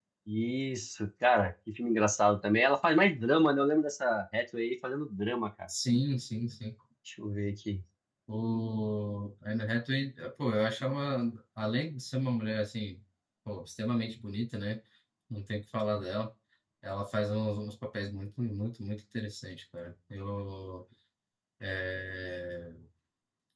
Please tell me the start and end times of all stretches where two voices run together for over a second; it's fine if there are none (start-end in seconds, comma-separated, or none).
none